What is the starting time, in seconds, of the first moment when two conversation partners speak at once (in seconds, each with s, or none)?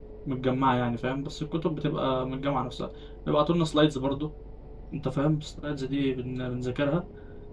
none